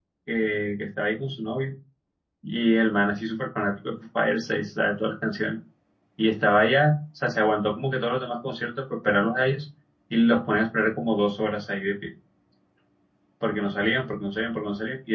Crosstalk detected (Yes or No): No